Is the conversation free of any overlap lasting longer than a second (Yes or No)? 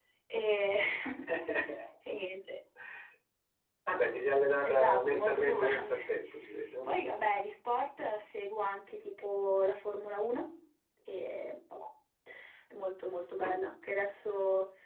No